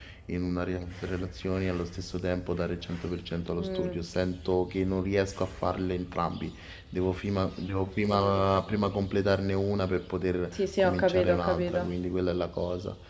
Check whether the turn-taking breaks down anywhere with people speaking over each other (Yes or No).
Yes